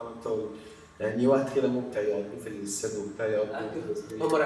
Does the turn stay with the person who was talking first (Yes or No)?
No